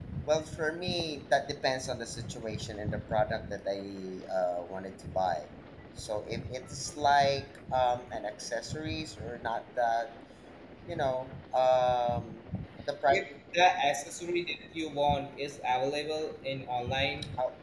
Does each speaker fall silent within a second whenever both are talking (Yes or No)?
Yes